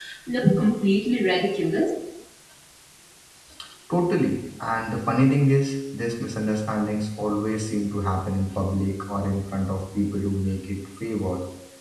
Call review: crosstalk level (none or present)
none